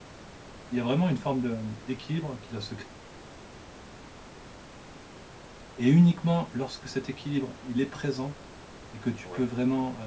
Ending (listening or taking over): listening